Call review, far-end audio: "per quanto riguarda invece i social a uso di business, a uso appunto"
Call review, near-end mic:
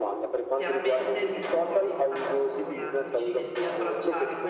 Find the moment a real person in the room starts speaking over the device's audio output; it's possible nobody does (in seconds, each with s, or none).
0.5 s